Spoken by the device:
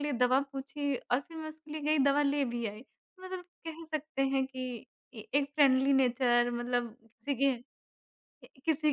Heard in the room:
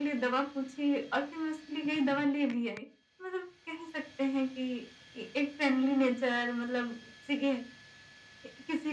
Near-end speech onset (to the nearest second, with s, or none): none